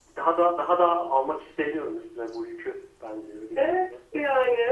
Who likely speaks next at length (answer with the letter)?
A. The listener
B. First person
A